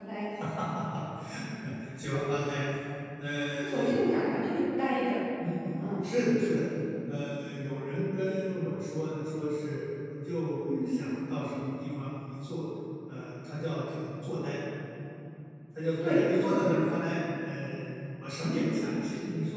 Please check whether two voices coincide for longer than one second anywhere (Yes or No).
No